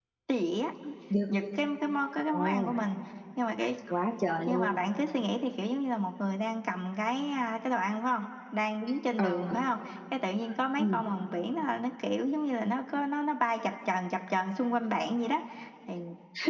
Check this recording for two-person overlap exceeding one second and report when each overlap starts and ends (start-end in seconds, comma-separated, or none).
none